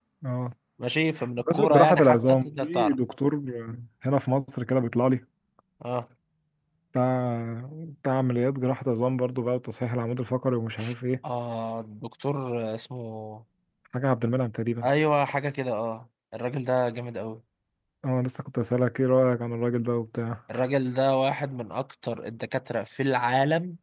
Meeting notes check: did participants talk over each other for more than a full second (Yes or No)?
Yes